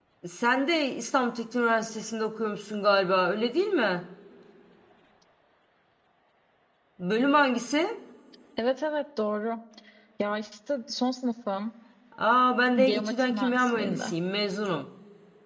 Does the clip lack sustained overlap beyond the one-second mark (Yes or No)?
No